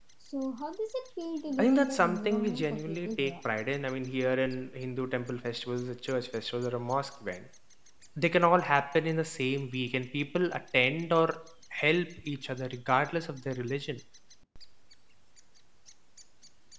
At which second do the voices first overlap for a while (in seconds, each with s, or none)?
1.6 s